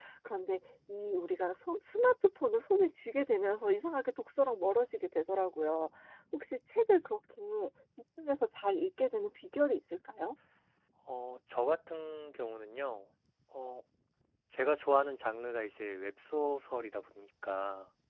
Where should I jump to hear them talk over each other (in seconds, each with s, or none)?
none